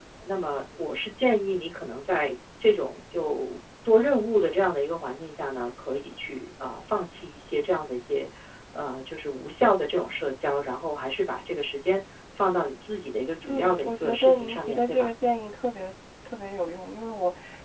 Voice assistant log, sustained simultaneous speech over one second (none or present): present